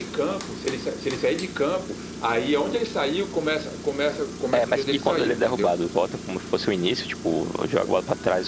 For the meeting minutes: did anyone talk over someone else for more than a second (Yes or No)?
Yes